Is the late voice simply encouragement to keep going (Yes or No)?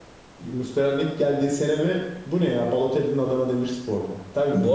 No